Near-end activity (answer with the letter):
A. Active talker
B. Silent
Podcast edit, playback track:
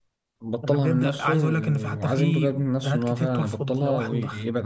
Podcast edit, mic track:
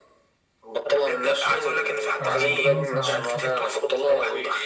A